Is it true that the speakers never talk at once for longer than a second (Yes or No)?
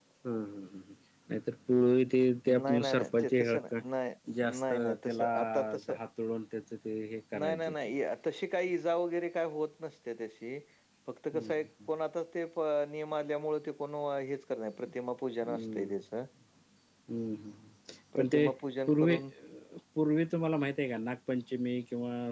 No